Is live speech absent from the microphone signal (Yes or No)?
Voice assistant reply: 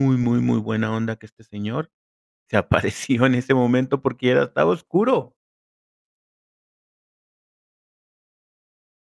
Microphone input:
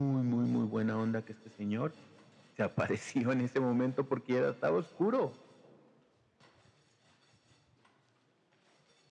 Yes